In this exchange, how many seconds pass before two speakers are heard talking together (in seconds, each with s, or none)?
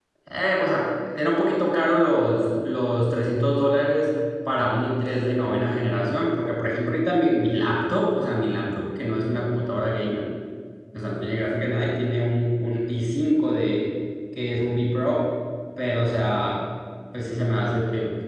none